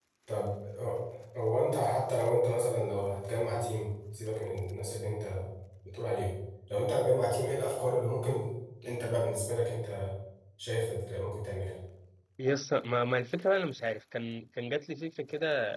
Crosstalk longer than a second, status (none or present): none